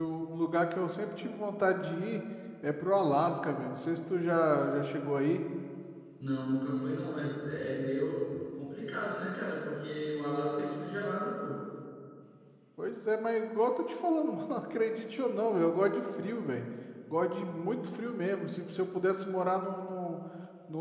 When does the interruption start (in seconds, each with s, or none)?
none